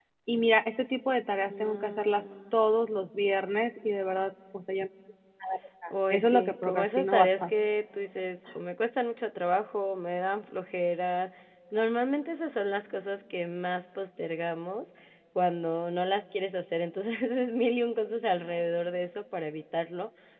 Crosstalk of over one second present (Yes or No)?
Yes